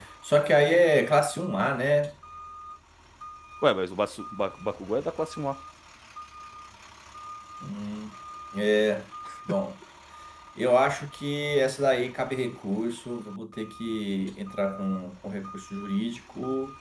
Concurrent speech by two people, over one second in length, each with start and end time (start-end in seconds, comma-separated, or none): none